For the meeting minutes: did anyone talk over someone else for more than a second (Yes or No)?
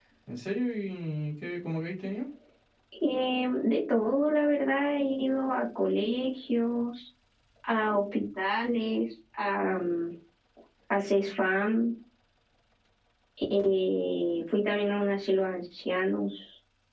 No